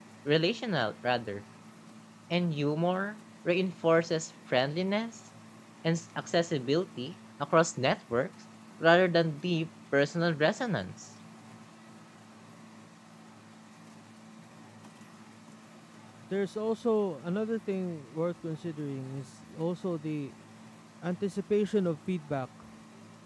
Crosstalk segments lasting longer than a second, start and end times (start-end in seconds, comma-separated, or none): none